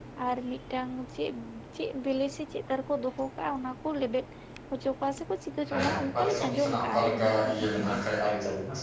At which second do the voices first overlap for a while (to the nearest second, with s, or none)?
6 s